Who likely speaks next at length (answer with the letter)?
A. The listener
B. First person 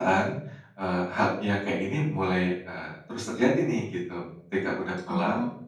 B